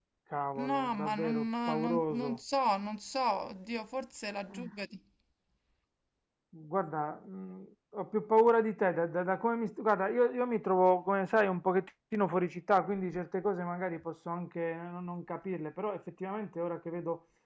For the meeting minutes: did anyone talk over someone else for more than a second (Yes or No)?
Yes